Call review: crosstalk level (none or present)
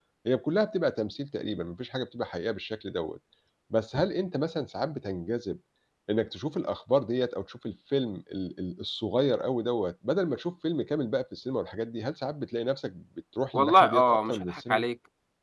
present